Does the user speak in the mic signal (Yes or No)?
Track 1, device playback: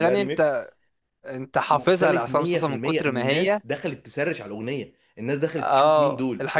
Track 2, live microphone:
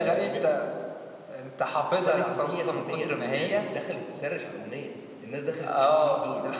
No